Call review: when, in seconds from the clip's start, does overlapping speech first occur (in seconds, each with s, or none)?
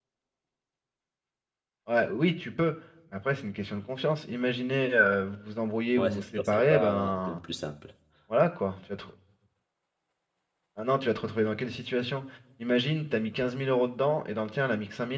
6.0 s